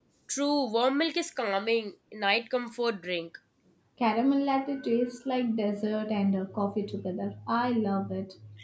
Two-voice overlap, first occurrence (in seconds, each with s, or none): none